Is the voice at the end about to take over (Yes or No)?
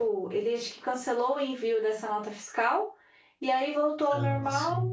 No